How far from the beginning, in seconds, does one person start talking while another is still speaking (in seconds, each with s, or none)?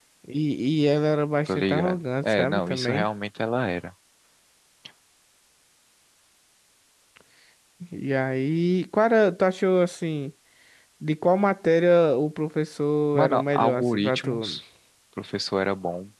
1.5 s